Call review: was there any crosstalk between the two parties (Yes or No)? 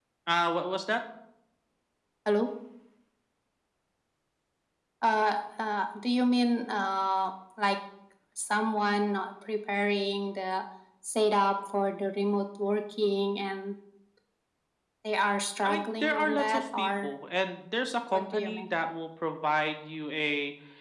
Yes